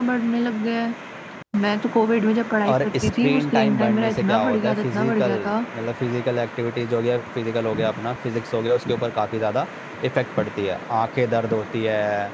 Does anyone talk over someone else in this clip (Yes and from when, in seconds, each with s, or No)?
Yes, from 2.6 s